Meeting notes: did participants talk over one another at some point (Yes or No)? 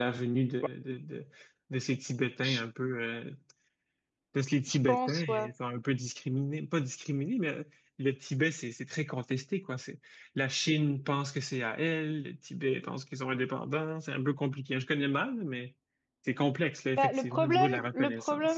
Yes